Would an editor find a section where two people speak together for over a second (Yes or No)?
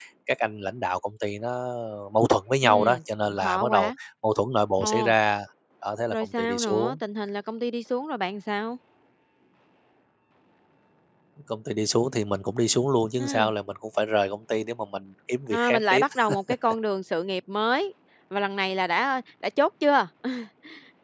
Yes